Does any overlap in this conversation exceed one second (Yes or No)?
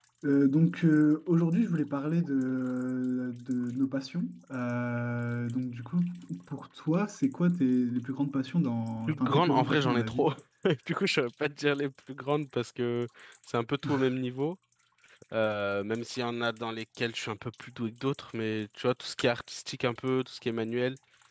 Yes